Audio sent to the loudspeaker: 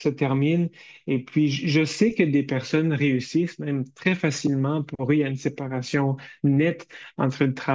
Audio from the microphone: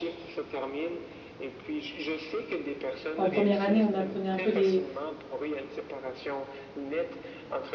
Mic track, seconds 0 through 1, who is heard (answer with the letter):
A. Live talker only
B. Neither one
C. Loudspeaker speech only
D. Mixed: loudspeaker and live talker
C